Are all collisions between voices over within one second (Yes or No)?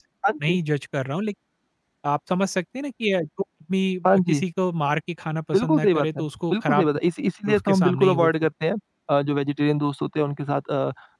No